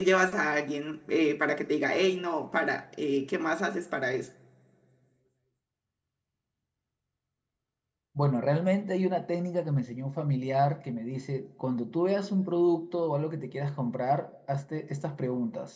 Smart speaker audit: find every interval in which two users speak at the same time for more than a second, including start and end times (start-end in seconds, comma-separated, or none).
none